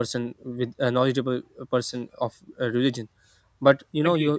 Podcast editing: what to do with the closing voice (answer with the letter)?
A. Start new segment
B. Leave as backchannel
B